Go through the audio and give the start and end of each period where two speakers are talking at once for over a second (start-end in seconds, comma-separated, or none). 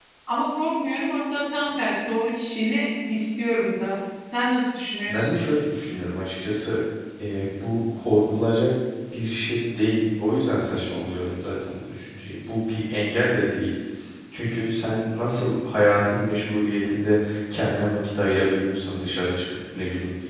none